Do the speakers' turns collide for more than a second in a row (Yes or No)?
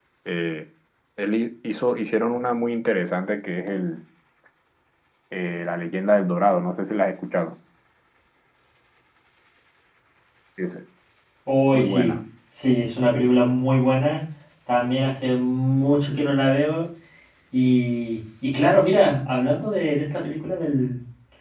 No